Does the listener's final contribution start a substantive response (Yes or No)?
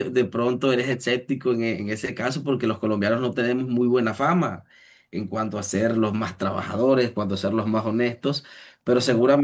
No